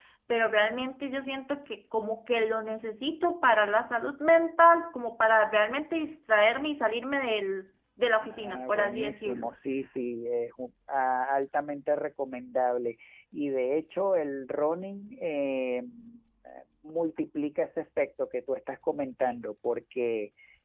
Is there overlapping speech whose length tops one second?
Yes, from 8.2 s

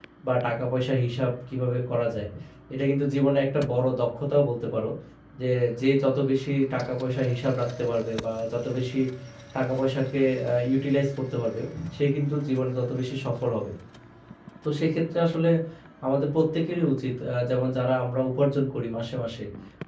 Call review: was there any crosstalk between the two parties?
No

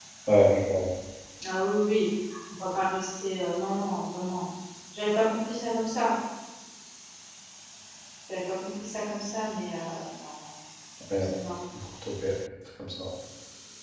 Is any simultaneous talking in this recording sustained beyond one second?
No

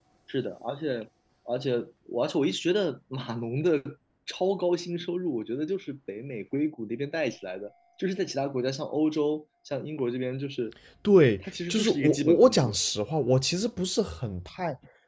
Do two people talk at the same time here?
Yes, from 11.4 s

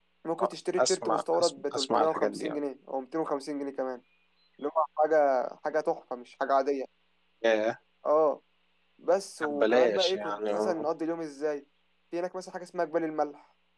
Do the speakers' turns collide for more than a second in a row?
Yes, from 0.8 s

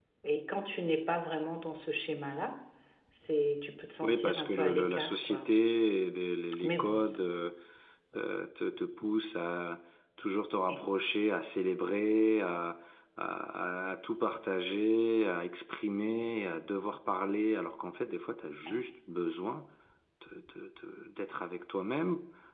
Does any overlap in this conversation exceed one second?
Yes, from 4.0 s

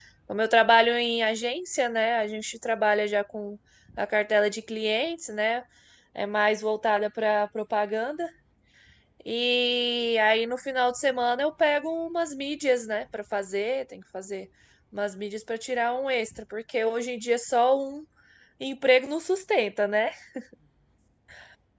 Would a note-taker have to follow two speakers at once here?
No

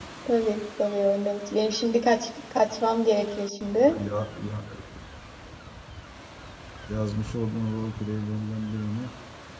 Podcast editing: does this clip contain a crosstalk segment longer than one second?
No

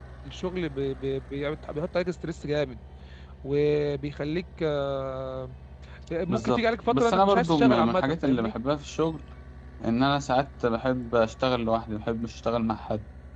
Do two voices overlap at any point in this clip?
Yes, from 6.3 s

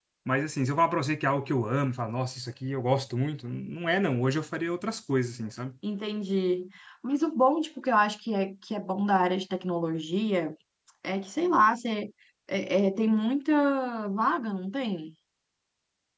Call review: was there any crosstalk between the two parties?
No

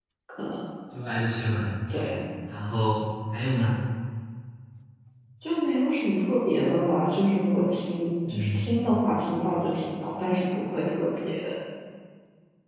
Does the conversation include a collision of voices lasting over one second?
No

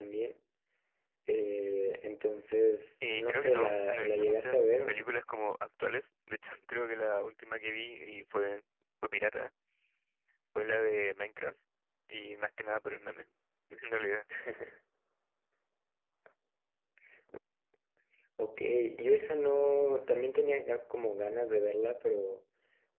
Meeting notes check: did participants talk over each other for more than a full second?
Yes, from 3.0 s

